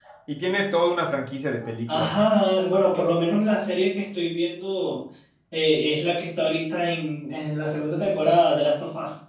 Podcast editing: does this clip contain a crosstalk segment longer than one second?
No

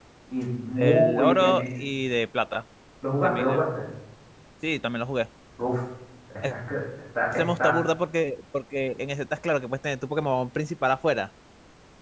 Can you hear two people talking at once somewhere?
Yes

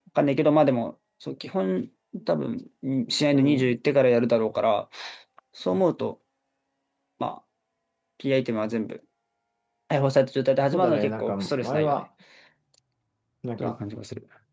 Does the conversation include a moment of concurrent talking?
Yes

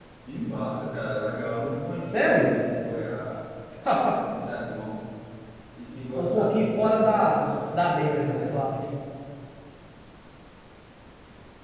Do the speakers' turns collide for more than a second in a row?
Yes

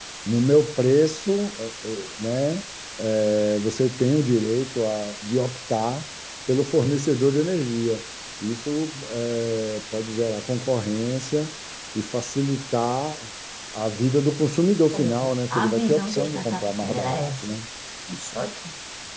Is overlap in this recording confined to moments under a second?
No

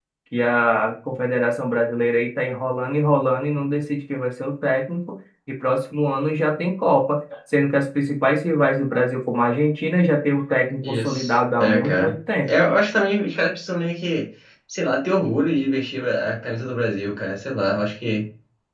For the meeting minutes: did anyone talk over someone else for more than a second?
Yes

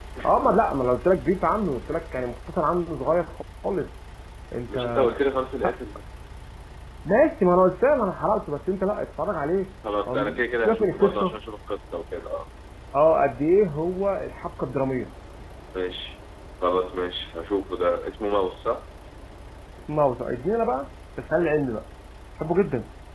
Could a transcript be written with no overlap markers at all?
No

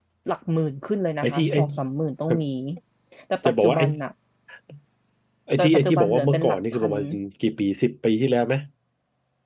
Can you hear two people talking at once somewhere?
Yes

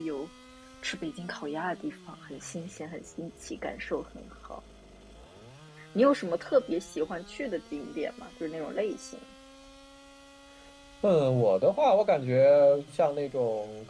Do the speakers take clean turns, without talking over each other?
Yes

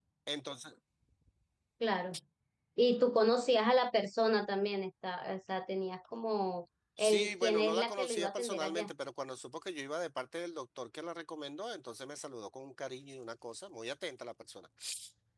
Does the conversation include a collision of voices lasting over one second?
Yes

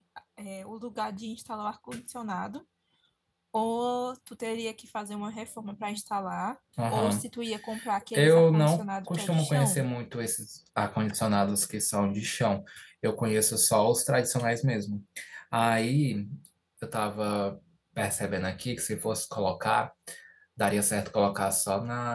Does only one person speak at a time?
No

